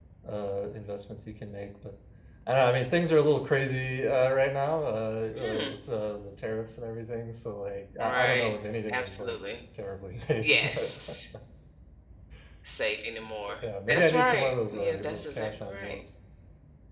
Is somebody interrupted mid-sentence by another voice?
Yes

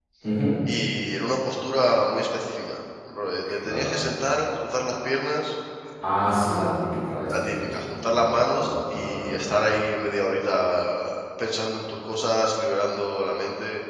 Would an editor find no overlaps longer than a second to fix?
No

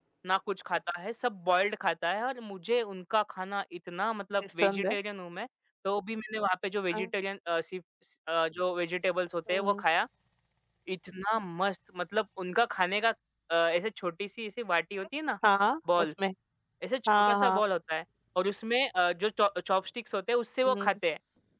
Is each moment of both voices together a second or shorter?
Yes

